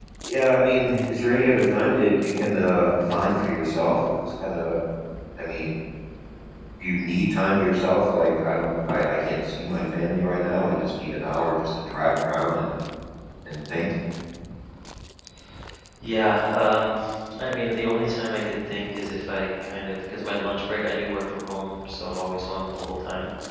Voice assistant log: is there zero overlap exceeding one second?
Yes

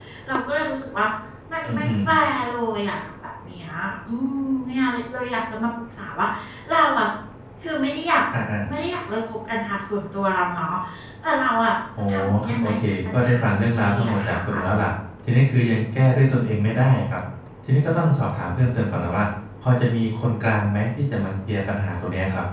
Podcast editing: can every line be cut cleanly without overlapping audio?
No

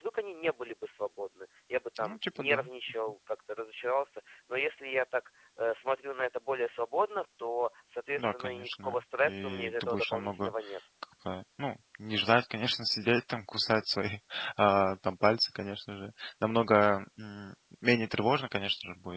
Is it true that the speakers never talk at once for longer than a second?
No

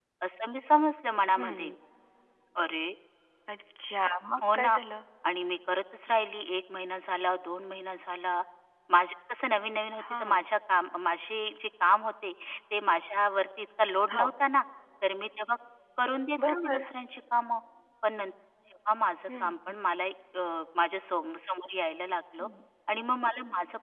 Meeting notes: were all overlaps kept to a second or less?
Yes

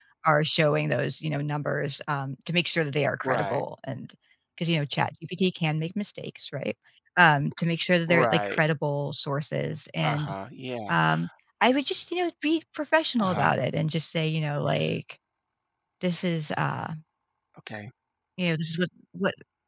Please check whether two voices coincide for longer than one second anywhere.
No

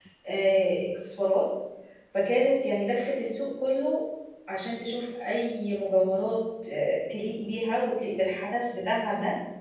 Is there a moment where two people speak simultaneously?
No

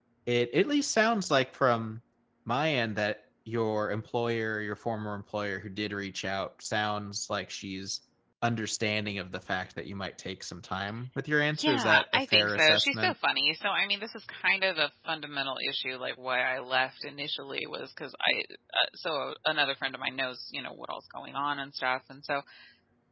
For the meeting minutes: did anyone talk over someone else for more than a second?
Yes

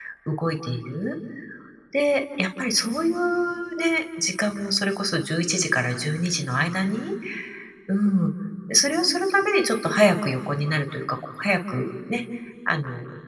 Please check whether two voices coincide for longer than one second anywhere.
No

